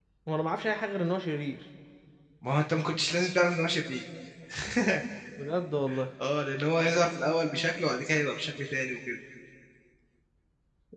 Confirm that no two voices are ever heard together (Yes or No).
Yes